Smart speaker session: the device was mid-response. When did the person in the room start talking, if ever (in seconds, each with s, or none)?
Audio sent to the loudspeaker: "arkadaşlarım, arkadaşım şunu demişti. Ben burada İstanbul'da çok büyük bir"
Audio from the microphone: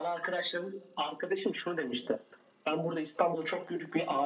none